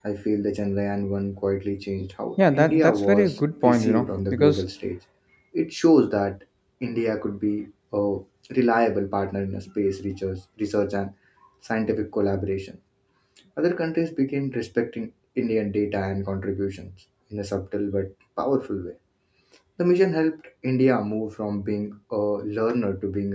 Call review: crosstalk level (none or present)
present